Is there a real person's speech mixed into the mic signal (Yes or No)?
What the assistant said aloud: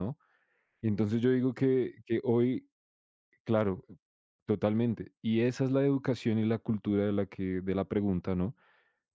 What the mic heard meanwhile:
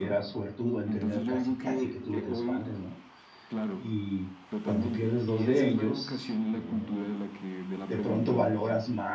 Yes